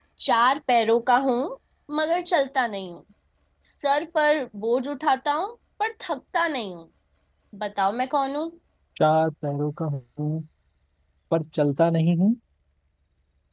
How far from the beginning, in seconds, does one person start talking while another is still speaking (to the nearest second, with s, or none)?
none